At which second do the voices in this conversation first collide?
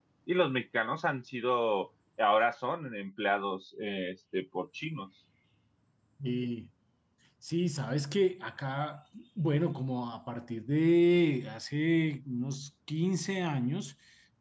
none

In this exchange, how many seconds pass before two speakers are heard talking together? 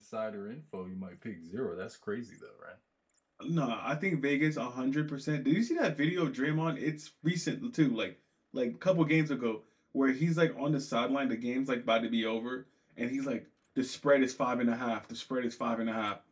none

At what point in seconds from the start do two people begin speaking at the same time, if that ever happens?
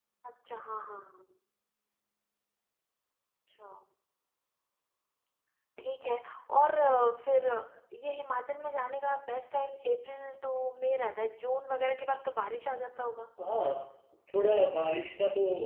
none

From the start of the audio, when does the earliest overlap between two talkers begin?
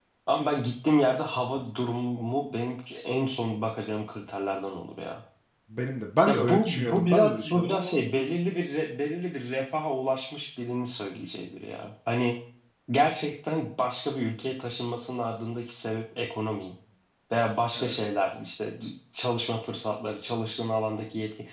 6.2 s

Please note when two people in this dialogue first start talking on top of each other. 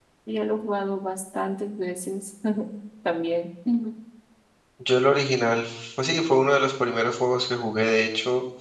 none

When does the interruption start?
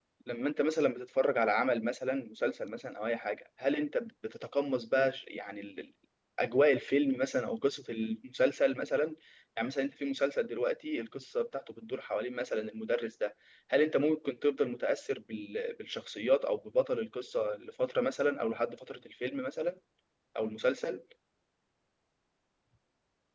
none

